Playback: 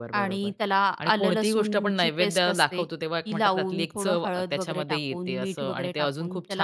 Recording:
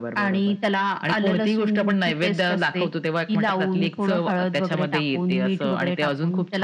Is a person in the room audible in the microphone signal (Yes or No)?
No